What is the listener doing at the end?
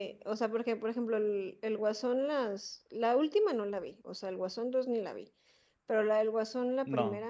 listening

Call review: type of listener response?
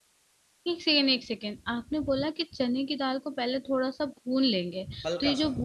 listening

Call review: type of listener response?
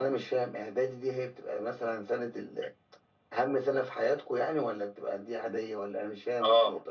taking over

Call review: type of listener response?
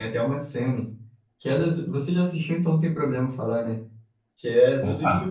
listening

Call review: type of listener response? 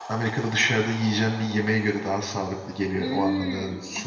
taking over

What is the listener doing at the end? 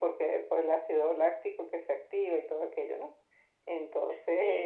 taking over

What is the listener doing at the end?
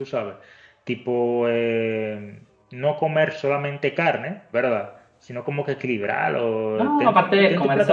taking over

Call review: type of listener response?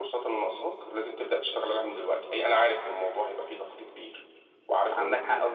taking over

